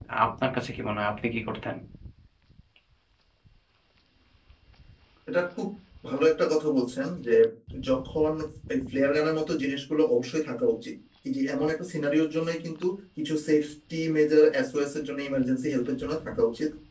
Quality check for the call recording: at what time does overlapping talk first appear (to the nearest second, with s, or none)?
none